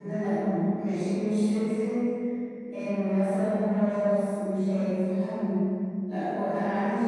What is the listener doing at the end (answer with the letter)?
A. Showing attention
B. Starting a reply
A